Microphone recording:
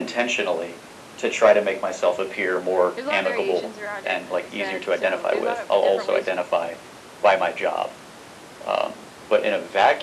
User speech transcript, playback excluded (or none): there's a lot of variations around it, as I said. So there's a lot of different ways you.